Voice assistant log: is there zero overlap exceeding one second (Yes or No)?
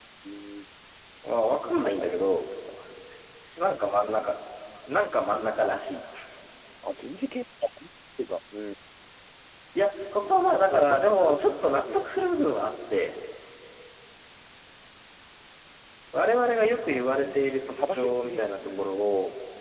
No